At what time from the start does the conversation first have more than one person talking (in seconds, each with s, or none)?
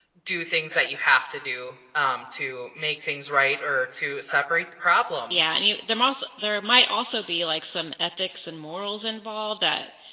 none